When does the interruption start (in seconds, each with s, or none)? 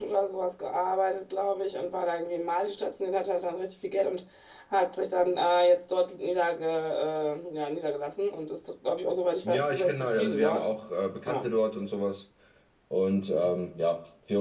9.4 s